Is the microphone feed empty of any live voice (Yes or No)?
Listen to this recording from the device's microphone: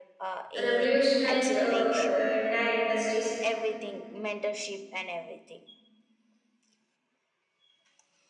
No